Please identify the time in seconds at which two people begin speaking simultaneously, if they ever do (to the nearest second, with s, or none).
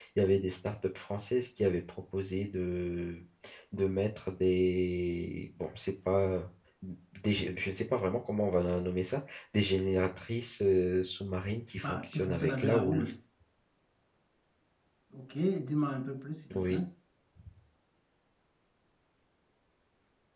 12 s